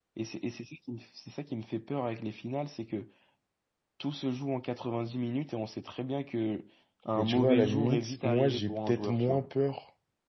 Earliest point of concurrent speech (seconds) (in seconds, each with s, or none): 7.2 s